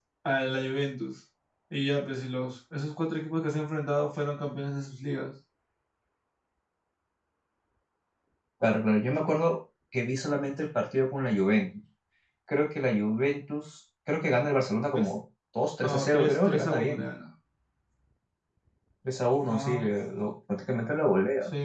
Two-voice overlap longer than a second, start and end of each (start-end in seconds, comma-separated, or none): 15.8-17.0